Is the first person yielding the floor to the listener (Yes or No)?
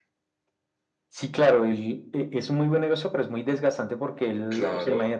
No